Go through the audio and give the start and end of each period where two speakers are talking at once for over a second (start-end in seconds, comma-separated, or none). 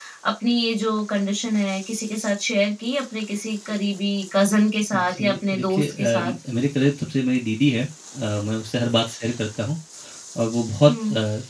4.9-6.3